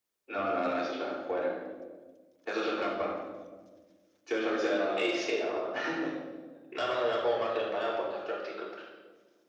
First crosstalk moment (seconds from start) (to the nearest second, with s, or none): none